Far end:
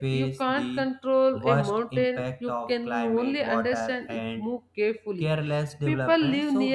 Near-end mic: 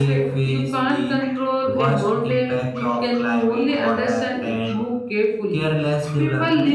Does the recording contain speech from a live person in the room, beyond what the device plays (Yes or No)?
No